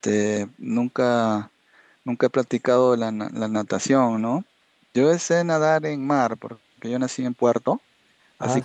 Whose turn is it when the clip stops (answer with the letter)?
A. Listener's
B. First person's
B